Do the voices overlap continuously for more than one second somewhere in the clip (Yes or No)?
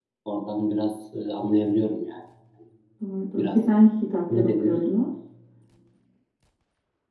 No